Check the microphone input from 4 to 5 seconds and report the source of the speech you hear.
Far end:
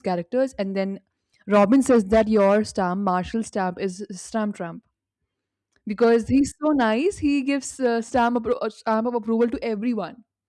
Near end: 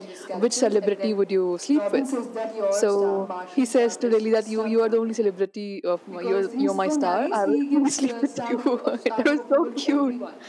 both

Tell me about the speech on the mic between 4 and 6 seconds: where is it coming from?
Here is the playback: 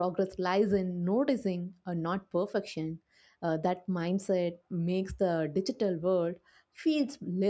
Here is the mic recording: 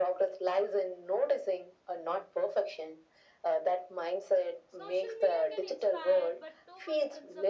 both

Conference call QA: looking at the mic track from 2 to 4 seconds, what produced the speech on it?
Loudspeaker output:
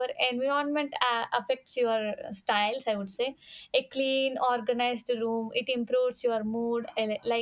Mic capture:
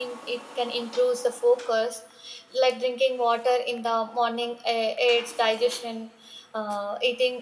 user only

